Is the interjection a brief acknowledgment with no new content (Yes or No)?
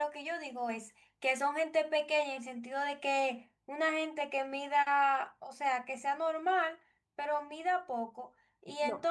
Yes